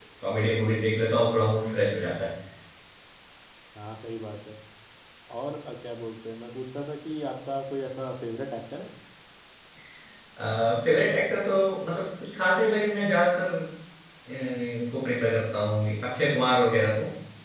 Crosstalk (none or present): none